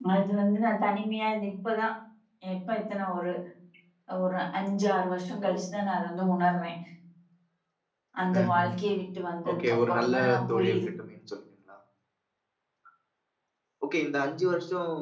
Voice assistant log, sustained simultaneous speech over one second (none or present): present